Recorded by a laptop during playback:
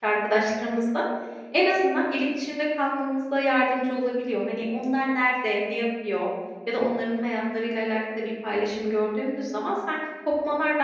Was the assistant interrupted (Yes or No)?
Yes